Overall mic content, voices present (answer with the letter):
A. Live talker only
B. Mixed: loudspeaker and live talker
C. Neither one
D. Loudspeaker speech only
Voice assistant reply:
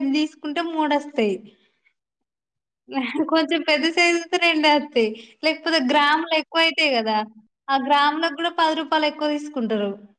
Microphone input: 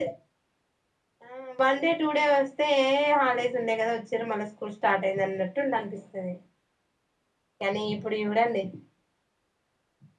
A